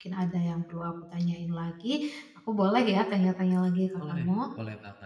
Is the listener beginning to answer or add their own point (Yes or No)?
Yes